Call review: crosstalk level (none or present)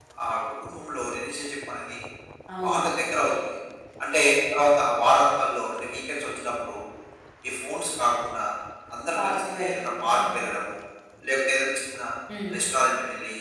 present